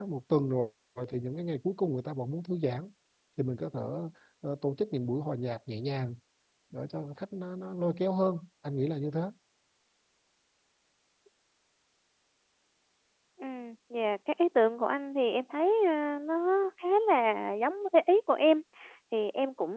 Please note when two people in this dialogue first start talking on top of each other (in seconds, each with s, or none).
none